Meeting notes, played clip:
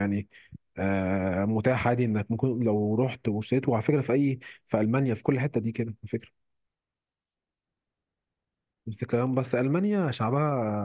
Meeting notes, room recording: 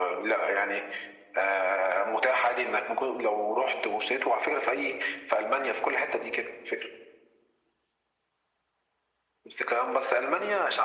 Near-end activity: none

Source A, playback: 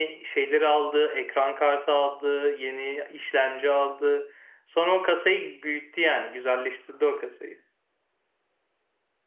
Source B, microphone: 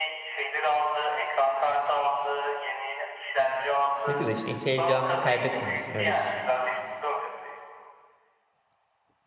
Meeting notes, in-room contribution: present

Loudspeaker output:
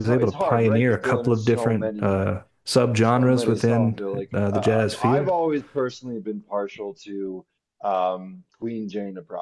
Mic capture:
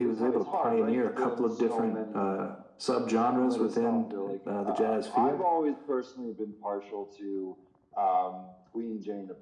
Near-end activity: none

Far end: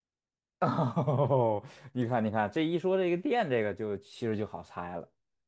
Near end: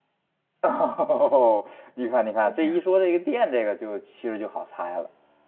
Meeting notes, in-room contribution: present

